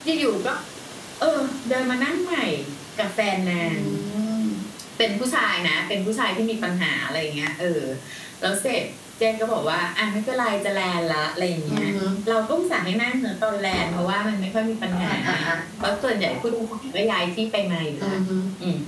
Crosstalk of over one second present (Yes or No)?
No